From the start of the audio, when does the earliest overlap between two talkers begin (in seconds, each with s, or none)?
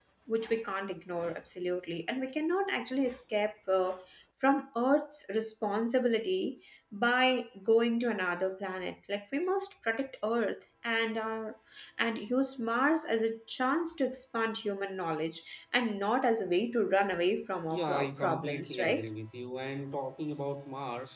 17.7 s